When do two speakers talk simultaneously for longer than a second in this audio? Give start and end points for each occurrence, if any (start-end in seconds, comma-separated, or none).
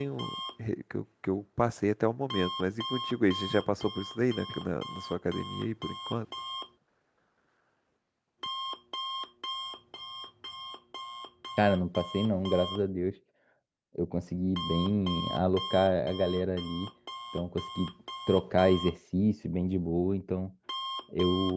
none